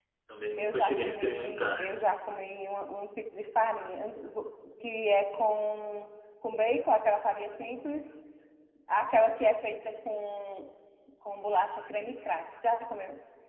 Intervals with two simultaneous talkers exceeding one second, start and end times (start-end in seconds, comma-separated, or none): 0.6-1.8